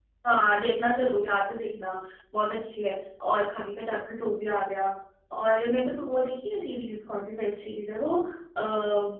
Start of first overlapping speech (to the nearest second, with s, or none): none